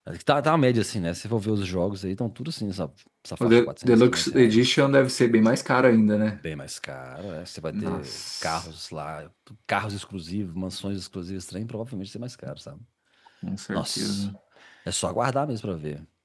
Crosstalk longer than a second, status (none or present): present